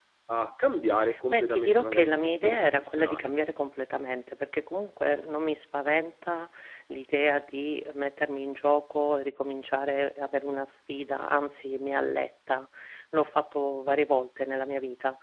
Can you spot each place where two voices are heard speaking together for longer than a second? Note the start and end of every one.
1.3-3.3

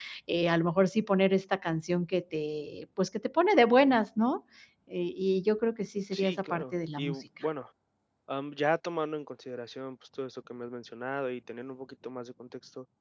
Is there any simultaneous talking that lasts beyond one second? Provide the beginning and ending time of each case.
6.1-7.5

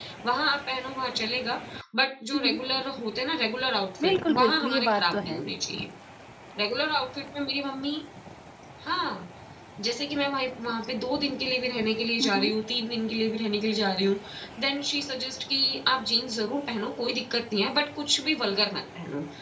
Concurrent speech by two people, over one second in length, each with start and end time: 4.0-5.4

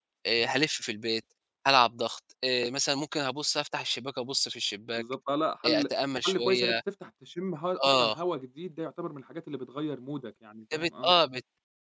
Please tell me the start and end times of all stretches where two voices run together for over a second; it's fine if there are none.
none

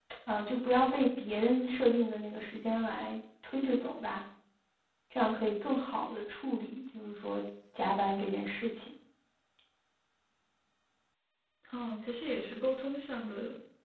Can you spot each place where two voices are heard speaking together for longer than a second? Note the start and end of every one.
none

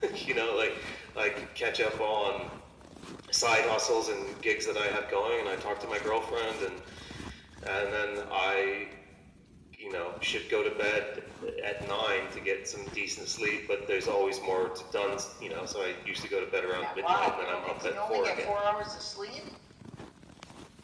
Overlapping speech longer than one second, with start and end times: 16.8-18.6

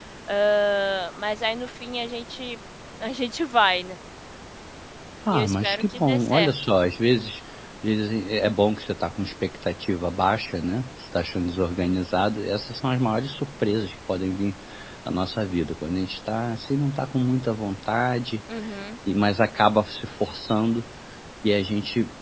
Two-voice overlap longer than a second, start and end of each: 5.3-6.5

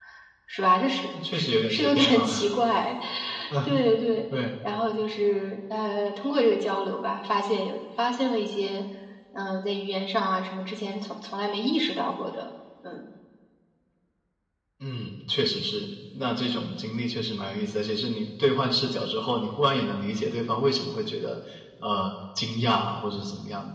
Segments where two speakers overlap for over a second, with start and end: 1.3-2.6

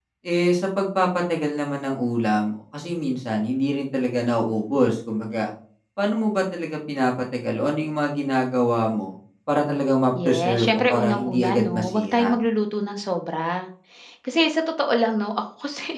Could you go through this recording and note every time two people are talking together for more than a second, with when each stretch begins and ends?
10.2-12.3

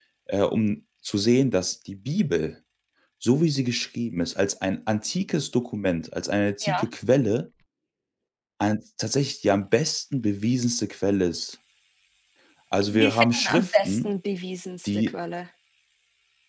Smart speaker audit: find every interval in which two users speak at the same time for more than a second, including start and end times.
12.9-14.1

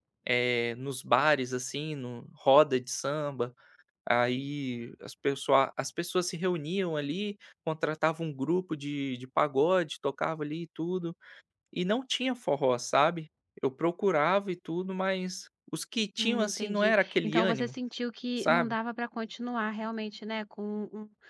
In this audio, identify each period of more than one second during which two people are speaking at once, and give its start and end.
16.2-17.7

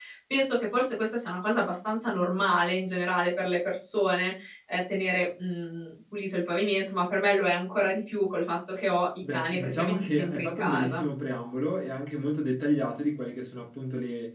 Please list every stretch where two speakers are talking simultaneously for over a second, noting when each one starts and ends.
9.3-11.0

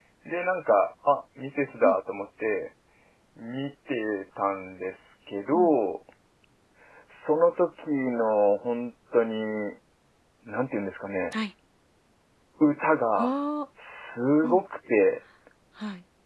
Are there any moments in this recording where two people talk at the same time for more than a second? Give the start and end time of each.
none

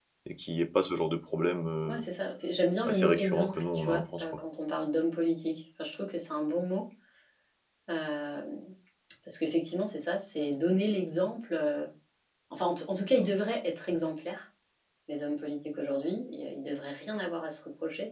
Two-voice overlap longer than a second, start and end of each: 2.8-4.3

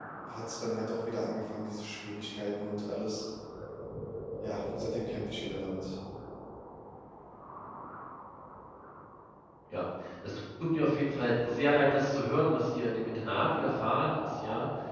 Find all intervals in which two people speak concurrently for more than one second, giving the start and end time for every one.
none

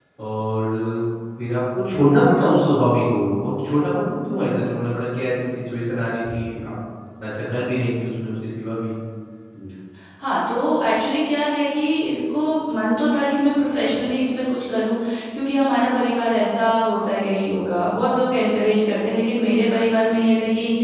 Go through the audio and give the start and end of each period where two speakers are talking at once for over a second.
none

